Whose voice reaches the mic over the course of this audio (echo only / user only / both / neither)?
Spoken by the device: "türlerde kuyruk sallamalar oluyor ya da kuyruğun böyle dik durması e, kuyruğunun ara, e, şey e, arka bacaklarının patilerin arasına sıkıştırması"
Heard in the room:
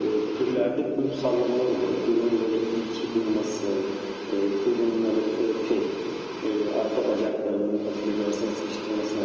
echo only